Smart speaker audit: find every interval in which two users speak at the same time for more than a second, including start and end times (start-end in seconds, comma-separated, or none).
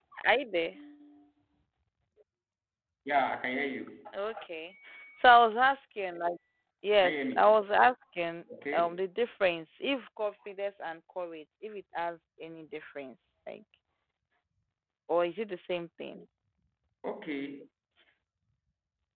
none